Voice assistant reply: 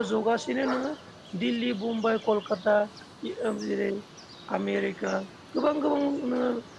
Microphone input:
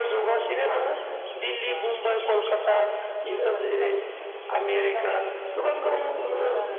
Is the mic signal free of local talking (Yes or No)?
No